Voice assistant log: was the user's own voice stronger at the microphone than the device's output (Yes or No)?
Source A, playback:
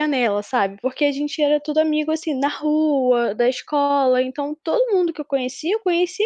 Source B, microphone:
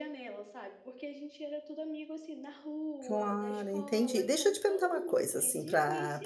Yes